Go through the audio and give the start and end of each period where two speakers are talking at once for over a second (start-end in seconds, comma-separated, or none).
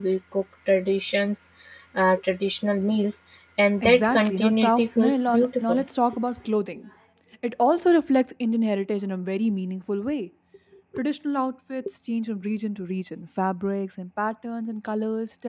3.8-5.8